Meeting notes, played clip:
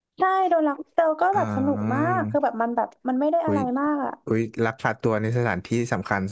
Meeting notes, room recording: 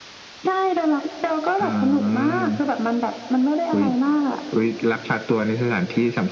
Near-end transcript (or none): none